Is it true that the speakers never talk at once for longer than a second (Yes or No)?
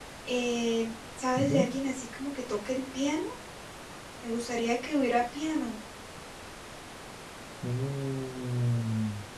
Yes